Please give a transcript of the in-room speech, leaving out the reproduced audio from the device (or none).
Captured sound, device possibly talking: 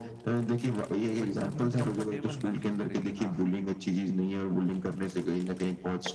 बच्चा भी ना कम्फ़ोर्टेबल महसूस करे कि हाँ